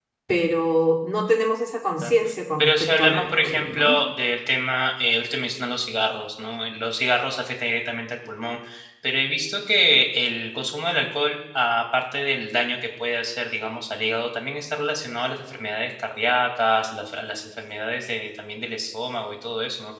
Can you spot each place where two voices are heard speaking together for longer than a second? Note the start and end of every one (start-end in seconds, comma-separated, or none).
2.6-4.0